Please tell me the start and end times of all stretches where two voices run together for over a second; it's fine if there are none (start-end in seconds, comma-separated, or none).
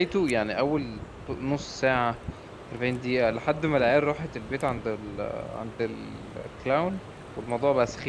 none